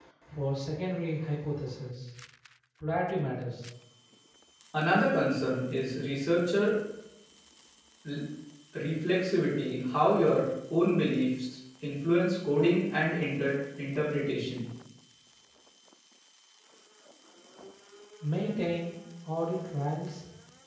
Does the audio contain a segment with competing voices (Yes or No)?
No